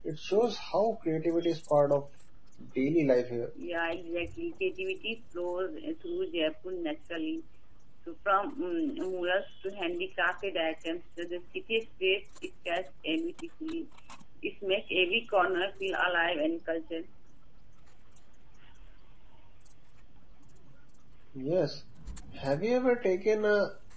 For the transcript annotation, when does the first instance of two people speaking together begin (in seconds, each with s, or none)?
none